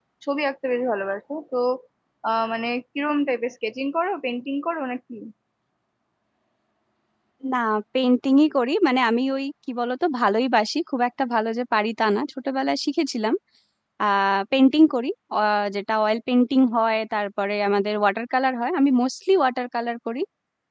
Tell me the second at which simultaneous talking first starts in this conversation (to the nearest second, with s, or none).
none